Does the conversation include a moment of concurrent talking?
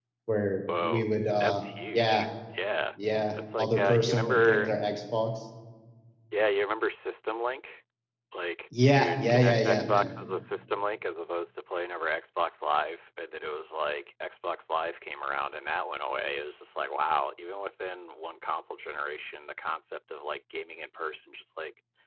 Yes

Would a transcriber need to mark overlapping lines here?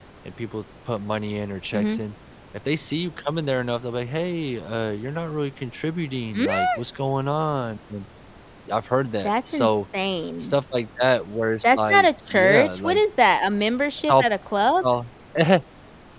Yes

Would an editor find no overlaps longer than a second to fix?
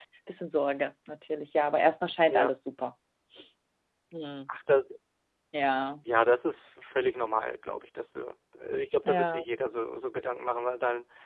Yes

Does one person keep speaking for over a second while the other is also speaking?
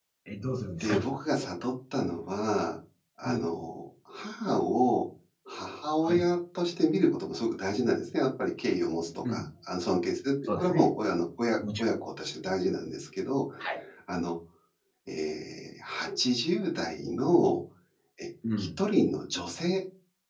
No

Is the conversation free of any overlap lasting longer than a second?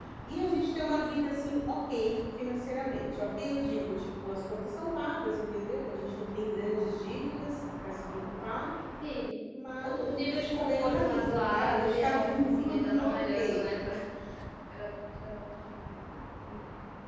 No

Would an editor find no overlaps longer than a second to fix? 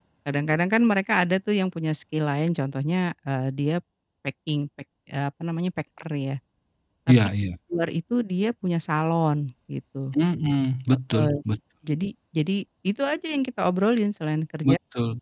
Yes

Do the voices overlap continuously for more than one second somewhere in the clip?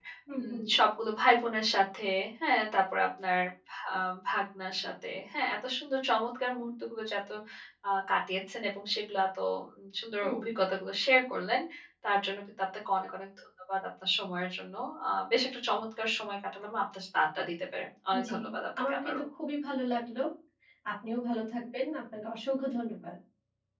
No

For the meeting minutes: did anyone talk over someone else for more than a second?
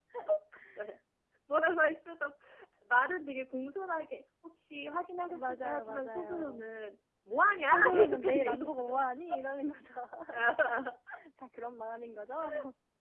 Yes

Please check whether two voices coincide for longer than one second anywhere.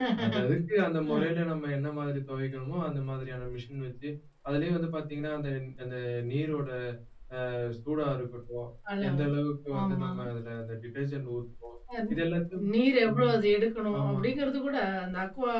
No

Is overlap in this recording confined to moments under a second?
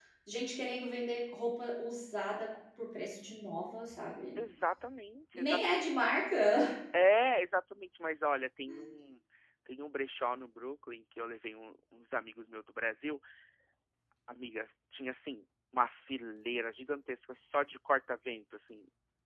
Yes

